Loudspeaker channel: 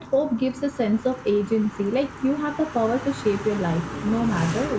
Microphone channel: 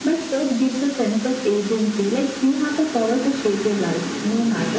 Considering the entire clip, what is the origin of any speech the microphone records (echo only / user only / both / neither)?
echo only